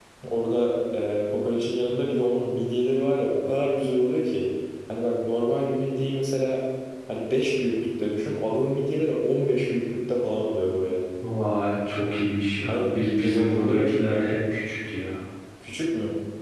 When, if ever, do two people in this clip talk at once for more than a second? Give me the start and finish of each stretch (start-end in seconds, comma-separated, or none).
12.7-14.0